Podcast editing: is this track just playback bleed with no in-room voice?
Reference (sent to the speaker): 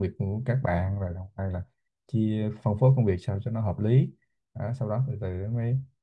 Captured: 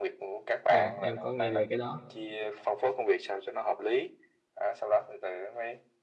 No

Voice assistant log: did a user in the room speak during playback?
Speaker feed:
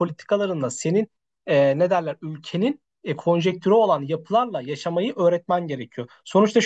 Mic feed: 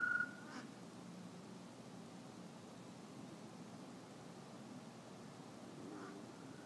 No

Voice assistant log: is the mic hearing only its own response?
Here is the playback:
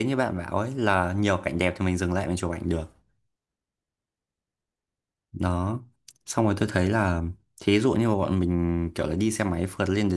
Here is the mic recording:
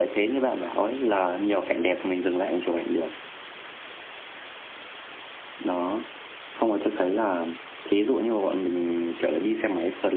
Yes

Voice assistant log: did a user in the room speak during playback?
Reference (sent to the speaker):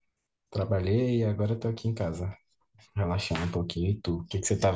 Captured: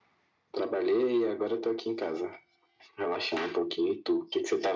No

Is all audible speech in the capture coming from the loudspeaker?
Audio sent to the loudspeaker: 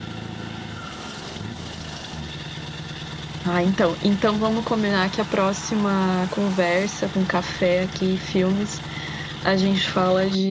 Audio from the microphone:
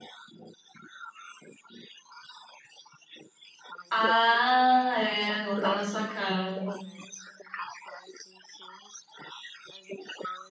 No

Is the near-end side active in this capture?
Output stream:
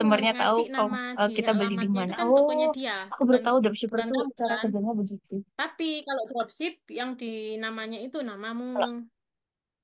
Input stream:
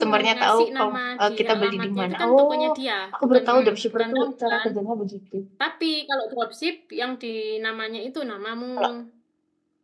Yes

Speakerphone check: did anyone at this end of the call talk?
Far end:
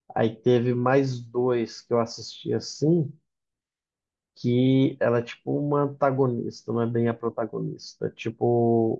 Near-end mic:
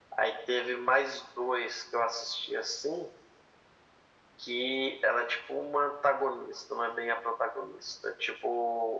No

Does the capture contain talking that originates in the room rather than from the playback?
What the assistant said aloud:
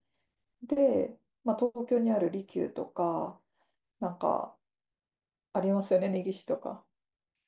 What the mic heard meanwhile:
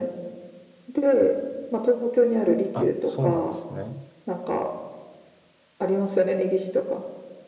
Yes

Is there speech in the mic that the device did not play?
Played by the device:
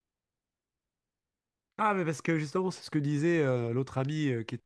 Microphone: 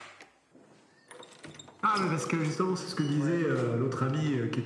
Yes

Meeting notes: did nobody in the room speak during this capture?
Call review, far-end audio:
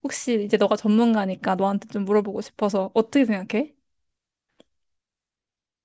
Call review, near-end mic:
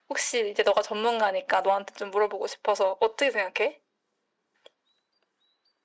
Yes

